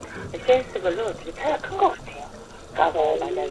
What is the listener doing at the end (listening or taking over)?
listening